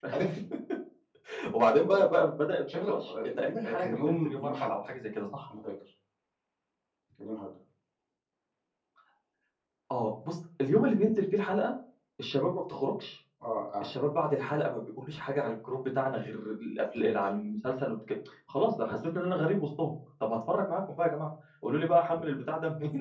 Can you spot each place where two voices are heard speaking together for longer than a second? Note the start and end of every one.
2.8-4.7

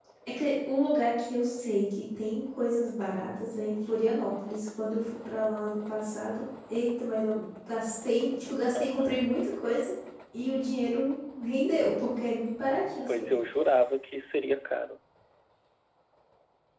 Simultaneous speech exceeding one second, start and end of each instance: none

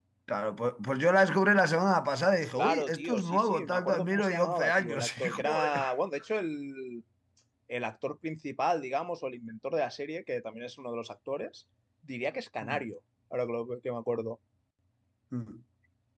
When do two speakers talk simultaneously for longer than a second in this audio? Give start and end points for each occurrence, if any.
2.6-5.8

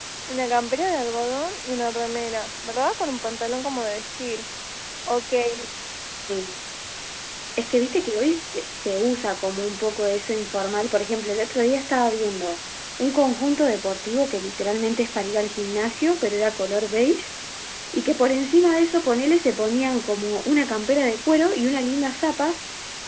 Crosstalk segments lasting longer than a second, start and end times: none

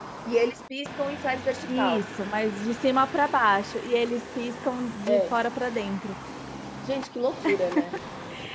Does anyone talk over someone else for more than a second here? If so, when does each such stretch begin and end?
none

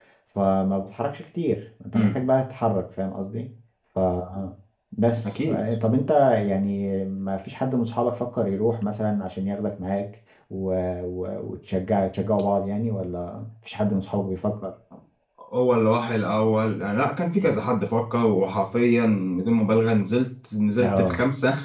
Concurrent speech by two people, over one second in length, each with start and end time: none

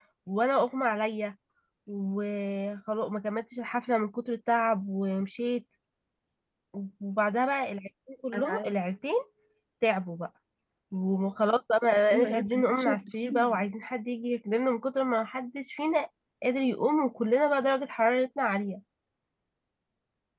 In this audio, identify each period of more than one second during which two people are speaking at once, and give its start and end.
12.1-13.6

